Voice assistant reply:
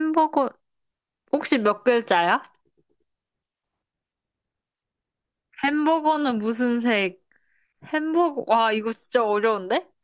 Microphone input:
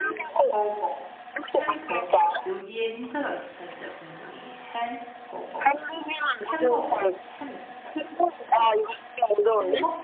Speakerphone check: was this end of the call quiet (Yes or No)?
No